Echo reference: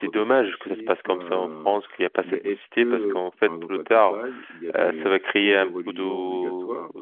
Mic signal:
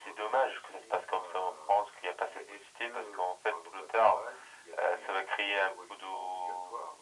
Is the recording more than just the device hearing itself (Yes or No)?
No